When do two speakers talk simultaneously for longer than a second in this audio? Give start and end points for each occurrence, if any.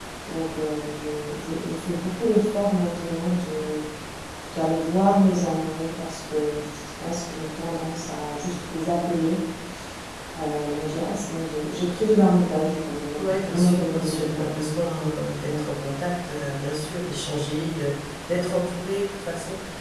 13.2-14.5

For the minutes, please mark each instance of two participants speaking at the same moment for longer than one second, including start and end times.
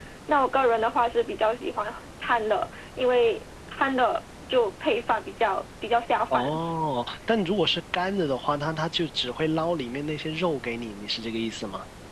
none

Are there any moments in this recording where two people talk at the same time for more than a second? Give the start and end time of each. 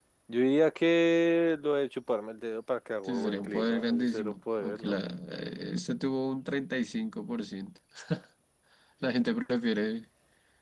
3.0-5.0

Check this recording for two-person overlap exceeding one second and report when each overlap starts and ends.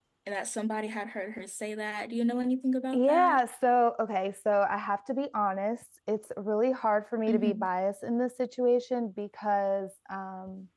none

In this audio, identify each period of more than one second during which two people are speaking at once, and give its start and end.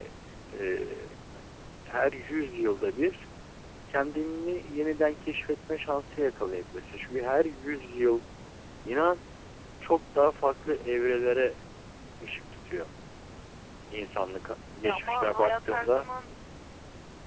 14.8-16.1

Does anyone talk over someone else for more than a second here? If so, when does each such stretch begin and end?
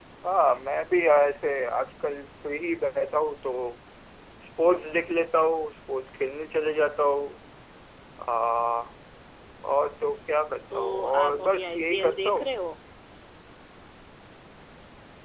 10.7-12.5

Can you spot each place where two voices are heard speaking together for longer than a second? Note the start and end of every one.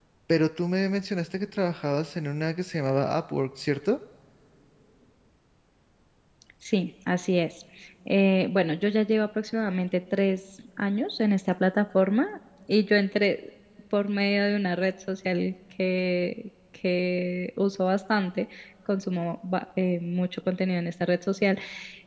none

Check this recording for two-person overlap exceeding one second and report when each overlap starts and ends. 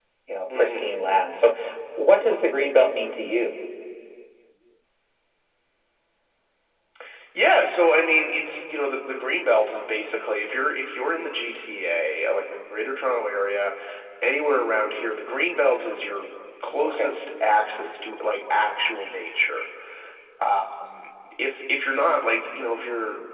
none

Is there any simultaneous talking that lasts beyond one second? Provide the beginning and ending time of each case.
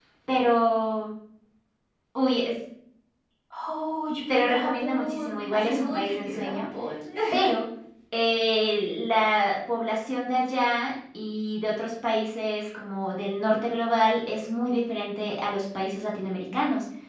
4.3-6.6

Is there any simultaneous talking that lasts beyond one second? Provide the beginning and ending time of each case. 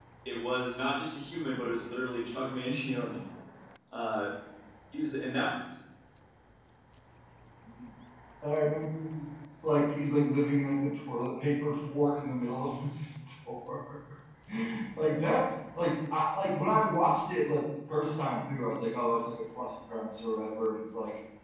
none

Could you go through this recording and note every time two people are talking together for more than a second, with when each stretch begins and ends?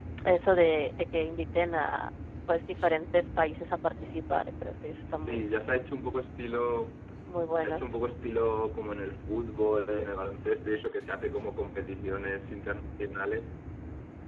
none

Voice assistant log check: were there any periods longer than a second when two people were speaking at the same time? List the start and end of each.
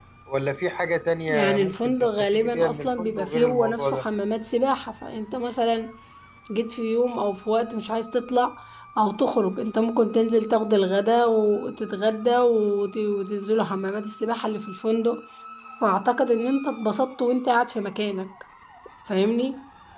1.3-4.0

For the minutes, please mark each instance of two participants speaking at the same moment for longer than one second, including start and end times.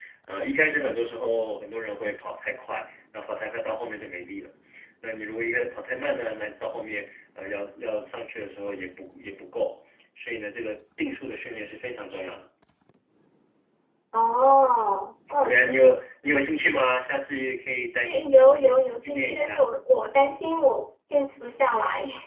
18.1-19.6

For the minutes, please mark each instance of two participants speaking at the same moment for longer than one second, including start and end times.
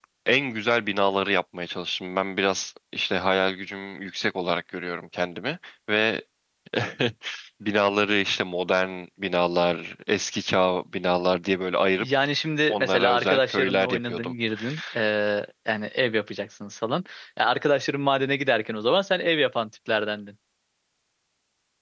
12.7-14.3

